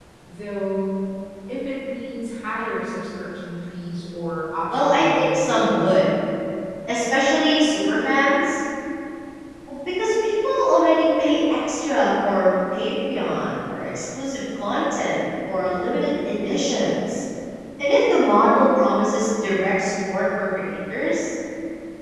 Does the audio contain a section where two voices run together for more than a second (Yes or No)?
Yes